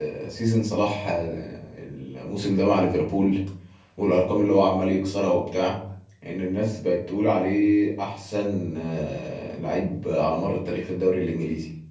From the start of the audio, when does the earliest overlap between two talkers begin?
none

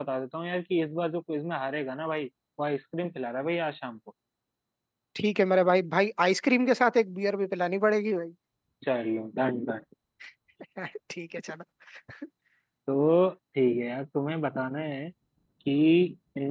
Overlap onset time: none

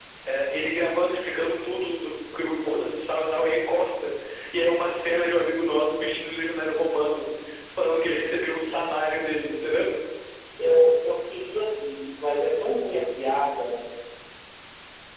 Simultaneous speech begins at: none

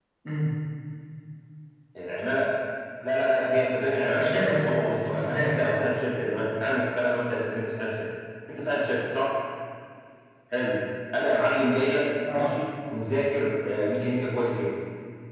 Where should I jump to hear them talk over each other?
4.2 s

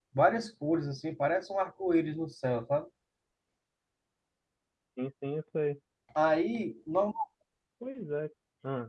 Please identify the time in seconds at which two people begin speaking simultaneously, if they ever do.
none

